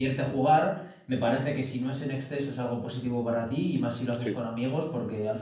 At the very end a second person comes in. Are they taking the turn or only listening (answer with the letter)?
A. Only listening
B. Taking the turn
A